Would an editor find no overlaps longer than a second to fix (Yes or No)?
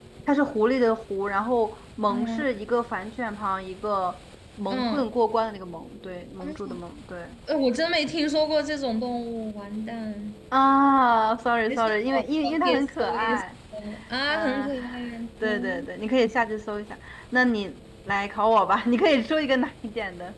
No